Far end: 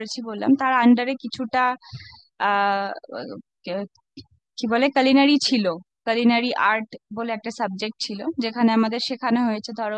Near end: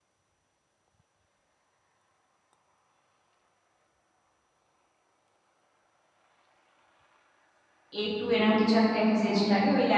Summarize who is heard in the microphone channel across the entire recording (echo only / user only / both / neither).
user only